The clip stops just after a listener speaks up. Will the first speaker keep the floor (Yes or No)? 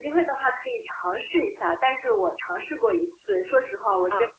Yes